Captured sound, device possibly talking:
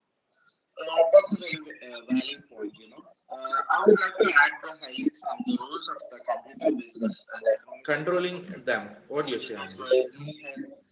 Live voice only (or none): controlling them. What do you say on this?